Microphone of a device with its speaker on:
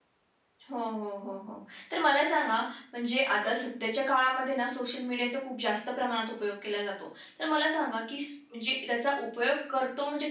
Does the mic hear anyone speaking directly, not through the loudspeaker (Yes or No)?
Yes